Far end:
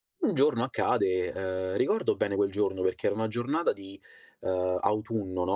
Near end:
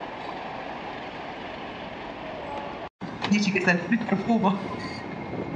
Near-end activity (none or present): present